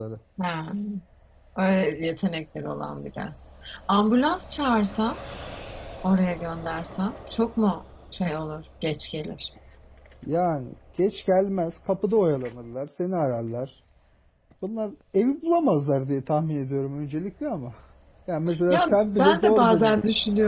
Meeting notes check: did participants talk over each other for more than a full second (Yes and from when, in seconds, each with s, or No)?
Yes, from 18.7 s